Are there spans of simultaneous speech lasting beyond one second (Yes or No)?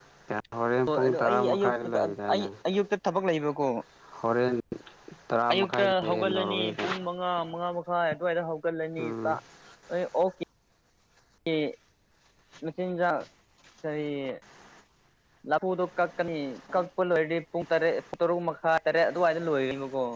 Yes